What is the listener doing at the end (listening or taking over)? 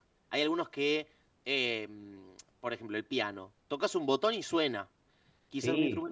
listening